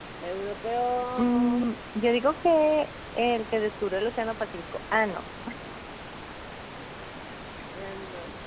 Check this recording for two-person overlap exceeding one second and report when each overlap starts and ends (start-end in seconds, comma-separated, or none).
none